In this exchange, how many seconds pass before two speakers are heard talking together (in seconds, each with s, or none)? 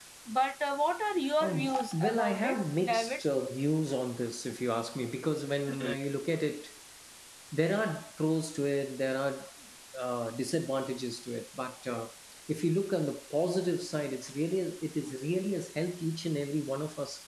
1.4 s